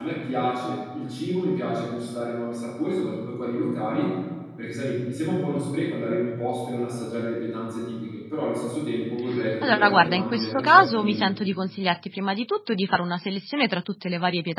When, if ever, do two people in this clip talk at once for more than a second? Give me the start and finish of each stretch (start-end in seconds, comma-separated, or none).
9.6-11.3